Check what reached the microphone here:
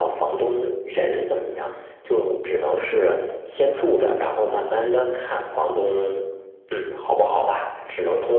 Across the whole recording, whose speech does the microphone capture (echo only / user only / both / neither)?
echo only